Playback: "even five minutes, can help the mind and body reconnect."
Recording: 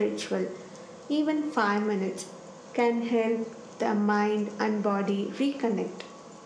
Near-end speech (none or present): none